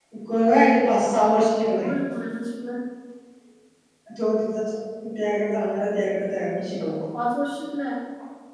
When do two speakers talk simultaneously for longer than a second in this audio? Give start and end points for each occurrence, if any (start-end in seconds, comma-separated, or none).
none